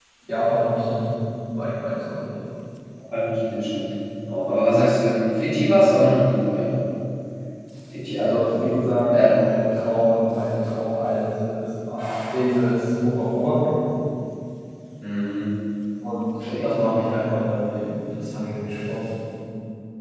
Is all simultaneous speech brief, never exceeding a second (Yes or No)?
Yes